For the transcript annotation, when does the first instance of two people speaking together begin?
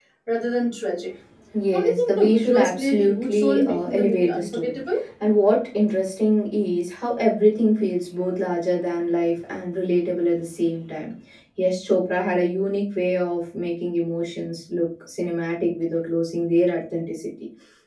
1.7 s

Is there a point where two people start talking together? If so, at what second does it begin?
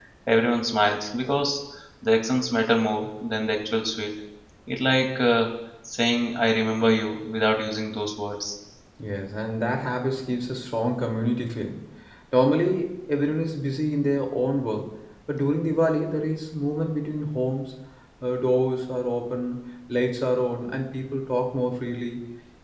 none

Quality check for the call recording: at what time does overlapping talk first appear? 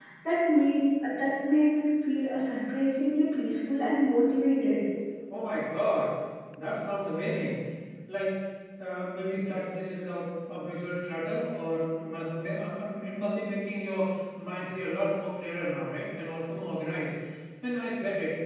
none

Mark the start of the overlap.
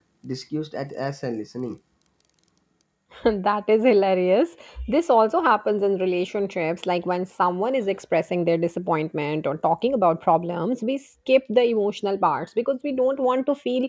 none

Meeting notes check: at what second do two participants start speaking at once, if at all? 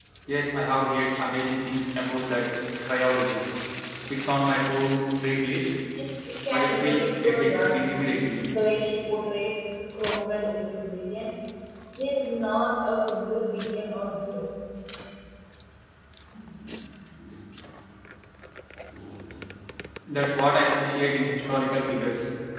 6.5 s

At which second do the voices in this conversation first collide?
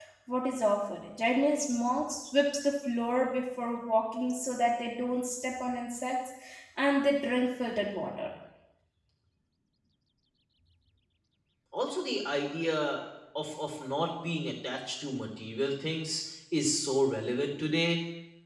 none

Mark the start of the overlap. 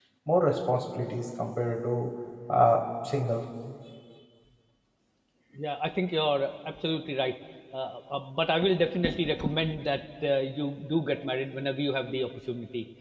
none

